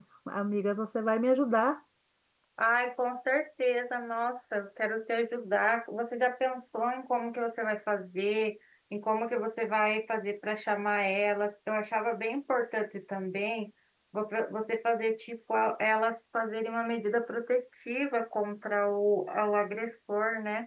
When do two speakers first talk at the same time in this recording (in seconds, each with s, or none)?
none